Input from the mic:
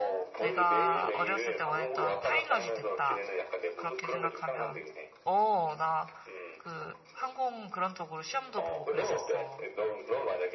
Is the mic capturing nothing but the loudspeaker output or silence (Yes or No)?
No